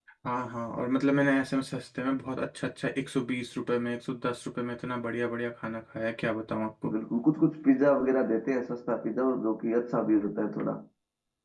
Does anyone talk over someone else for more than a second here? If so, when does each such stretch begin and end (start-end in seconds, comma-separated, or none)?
none